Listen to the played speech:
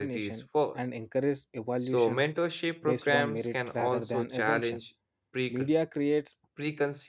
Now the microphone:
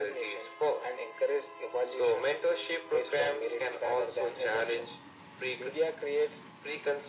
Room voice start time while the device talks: none

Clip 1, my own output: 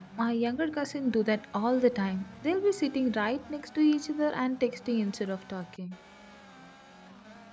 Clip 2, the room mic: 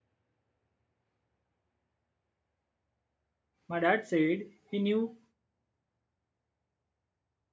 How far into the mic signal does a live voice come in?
3.7 s

